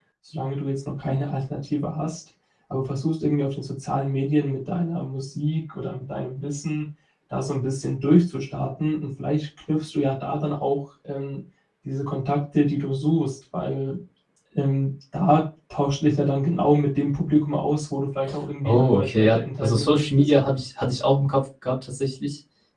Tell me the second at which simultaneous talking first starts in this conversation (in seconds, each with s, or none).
18.6 s